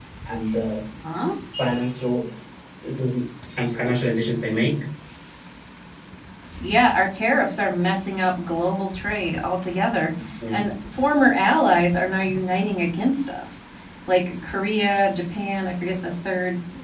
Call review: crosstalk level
none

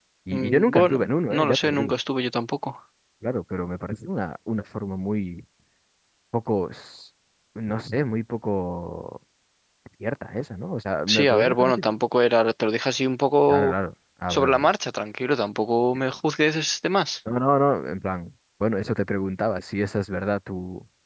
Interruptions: present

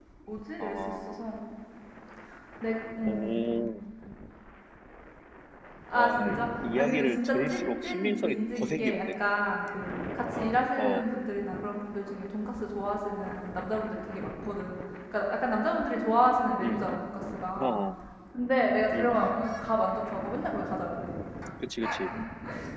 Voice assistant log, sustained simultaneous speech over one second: present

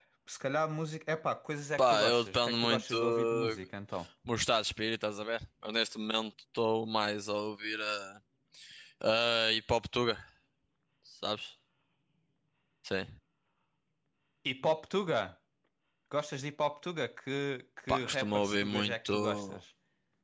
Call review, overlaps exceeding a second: present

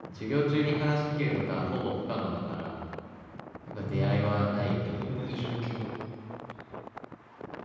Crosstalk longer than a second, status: present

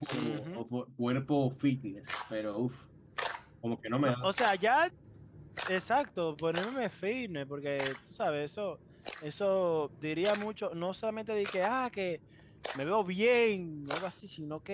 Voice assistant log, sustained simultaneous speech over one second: none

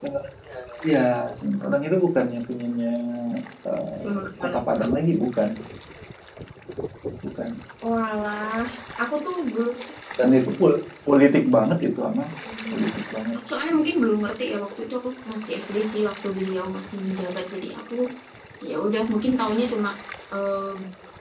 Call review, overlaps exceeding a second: none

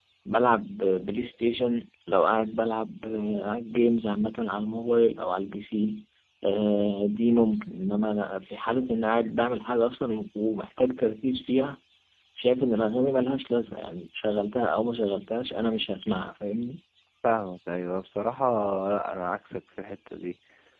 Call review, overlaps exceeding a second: none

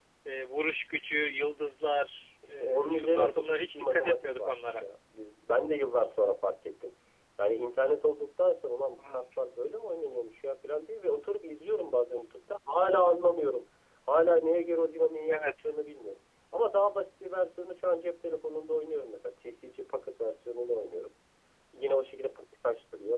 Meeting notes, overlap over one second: present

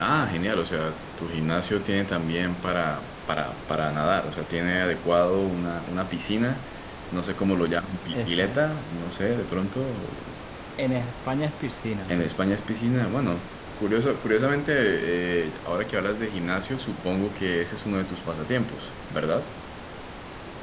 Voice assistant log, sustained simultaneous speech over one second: none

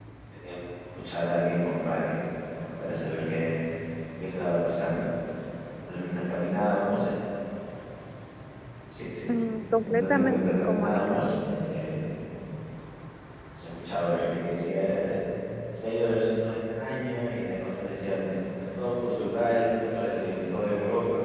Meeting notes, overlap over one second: present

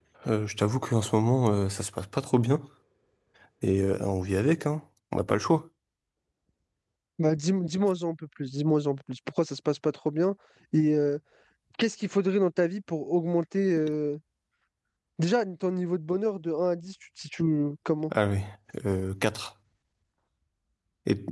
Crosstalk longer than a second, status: none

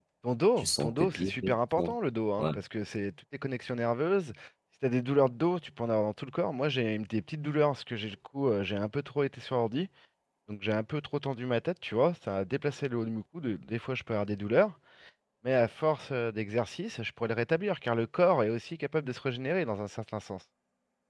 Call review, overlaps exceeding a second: present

